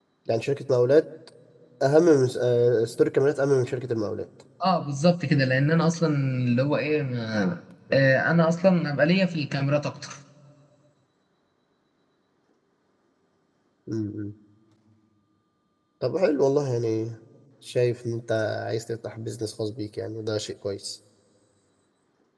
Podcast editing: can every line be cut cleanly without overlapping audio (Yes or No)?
Yes